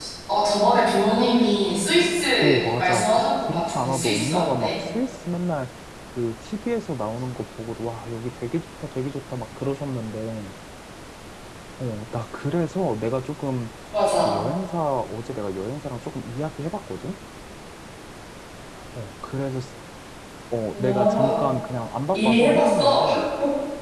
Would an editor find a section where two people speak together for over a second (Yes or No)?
Yes